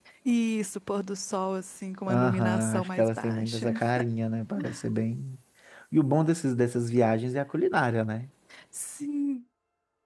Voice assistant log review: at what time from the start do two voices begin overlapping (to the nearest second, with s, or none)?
2 s